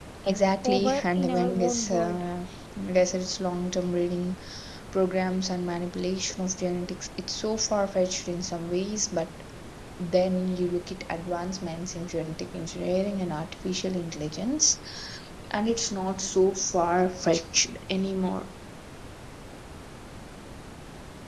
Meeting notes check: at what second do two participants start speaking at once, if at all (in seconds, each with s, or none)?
0.6 s